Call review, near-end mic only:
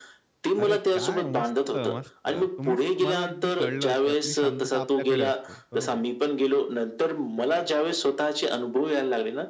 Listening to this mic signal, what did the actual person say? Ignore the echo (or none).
अरे काय! मस्त, मस्त. तुम्हीच तुम्हाला अगदी कळलं, की आपली शांतता आपल्याकडे असते, बरोबर.